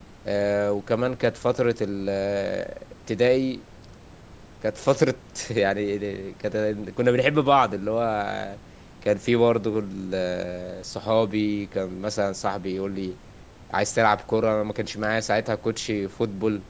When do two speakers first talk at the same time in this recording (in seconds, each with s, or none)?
none